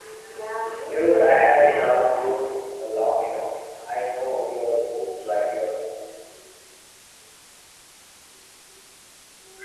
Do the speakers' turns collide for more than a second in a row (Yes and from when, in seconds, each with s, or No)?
Yes, from 0.9 s